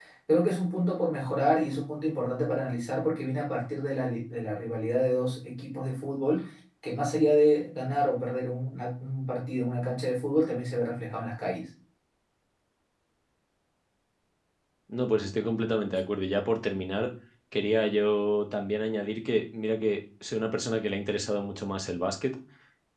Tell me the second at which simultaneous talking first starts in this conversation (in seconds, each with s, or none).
none